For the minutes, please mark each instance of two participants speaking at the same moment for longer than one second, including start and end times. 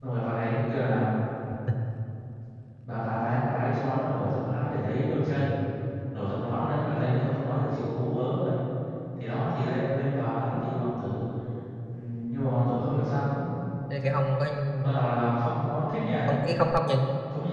none

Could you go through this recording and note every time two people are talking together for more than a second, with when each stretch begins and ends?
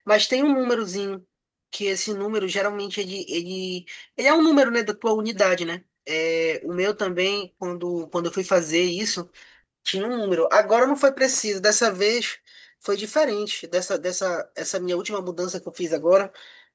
none

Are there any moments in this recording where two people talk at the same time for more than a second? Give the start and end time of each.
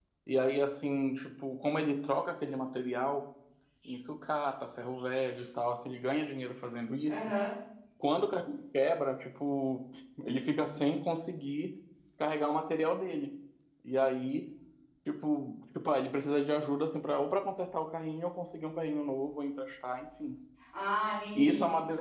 none

